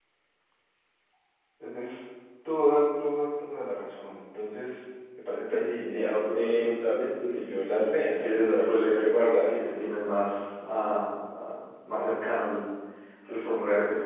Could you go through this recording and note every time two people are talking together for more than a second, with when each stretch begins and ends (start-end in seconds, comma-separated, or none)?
5.5-6.7, 7.3-9.8